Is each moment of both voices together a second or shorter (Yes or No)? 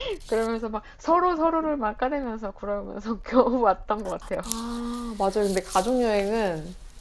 Yes